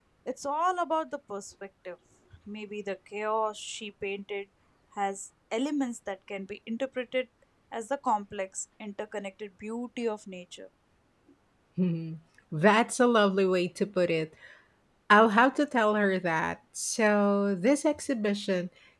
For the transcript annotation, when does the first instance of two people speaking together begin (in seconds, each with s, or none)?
none